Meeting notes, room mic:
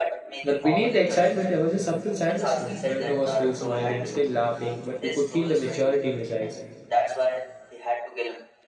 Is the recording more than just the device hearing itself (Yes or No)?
Yes